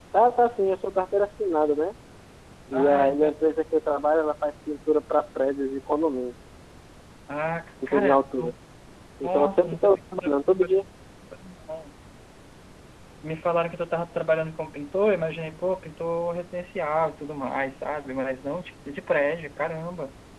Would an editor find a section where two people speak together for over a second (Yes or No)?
Yes